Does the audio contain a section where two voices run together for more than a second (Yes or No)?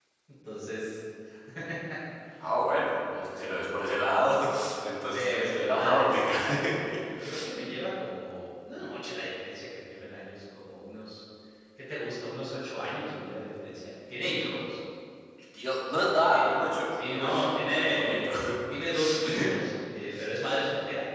Yes